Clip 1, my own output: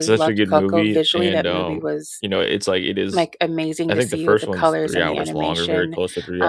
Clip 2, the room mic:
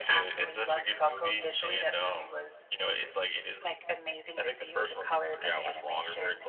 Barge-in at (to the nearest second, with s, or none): none